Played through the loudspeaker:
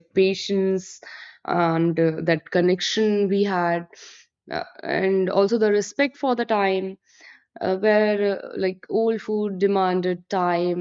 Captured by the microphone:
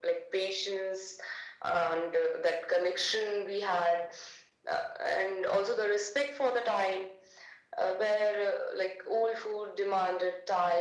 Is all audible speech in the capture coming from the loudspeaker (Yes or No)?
Yes